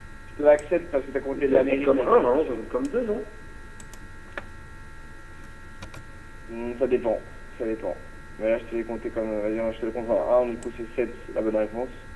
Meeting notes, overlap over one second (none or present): present